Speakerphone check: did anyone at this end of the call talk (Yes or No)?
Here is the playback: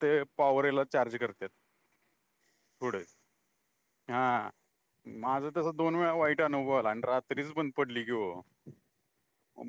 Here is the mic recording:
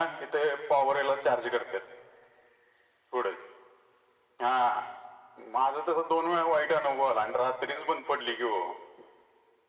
No